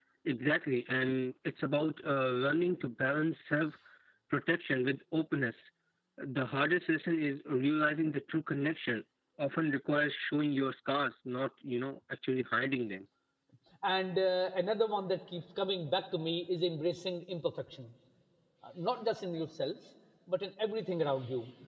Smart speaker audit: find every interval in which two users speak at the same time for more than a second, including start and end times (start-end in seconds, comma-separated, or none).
none